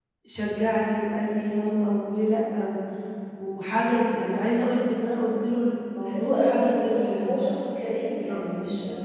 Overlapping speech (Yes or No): Yes